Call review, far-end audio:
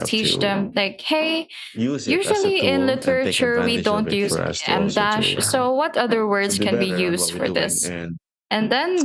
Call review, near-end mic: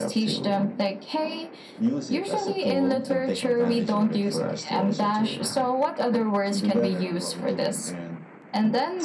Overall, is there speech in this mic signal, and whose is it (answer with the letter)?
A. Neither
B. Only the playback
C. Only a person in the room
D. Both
B